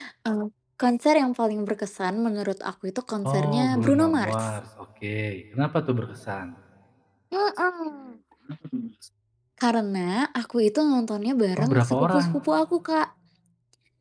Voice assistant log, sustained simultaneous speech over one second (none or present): present